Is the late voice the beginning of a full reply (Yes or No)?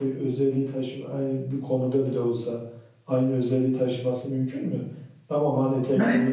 Yes